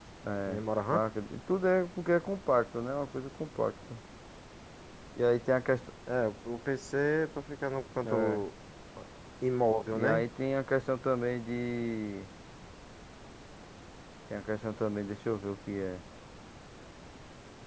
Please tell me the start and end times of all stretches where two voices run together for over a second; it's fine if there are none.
none

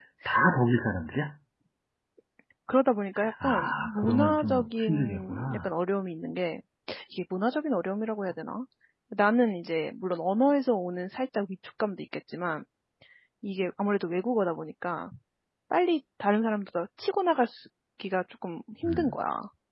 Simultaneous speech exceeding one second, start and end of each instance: 3.4-5.6

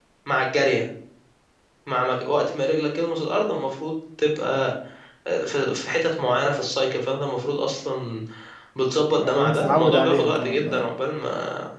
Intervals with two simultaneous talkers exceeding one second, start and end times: 9.2-10.9

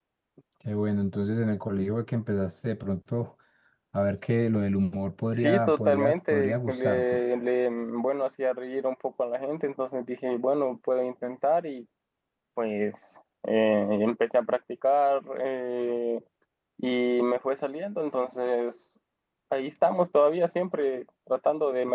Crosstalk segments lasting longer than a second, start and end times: 5.4-7.2

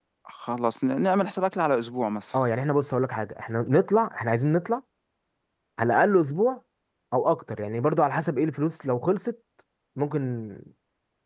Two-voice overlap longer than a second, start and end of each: none

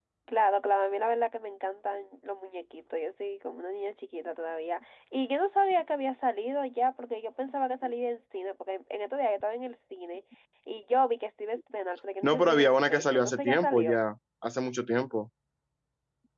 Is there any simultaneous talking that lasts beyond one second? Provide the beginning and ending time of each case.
12.2-14.0

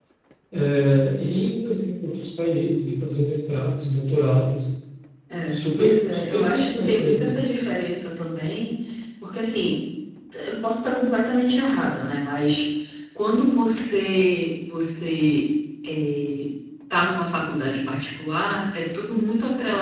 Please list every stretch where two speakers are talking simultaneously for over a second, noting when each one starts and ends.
5.5-7.4

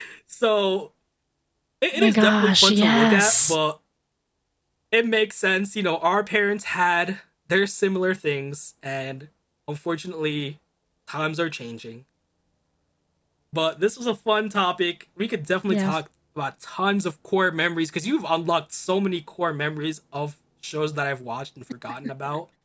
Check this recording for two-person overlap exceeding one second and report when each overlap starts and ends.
1.9-3.5

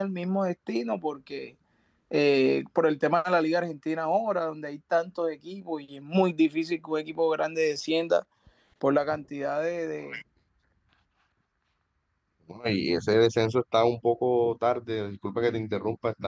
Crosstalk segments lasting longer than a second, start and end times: none

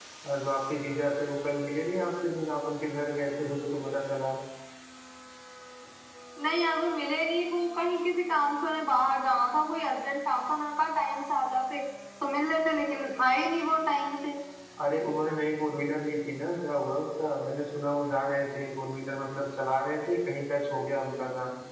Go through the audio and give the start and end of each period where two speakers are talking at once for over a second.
none

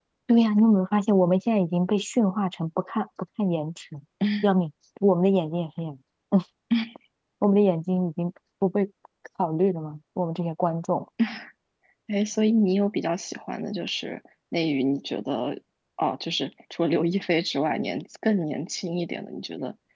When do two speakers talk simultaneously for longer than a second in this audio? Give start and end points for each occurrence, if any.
none

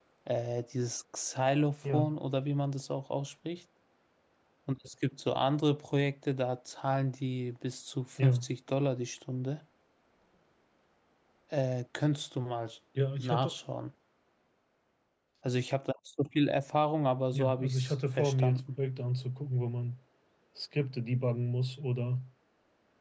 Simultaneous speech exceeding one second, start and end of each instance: 17.3-18.6

